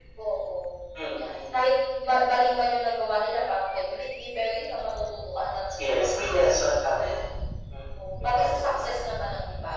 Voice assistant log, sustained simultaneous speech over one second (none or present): present